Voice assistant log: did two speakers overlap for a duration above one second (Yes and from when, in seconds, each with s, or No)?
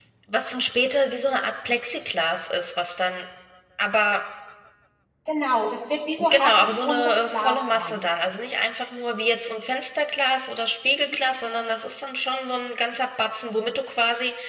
Yes, from 6.3 s